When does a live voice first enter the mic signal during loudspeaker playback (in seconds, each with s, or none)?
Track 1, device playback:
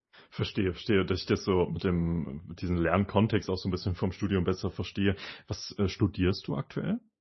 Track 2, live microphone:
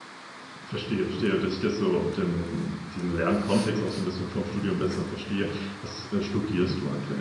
none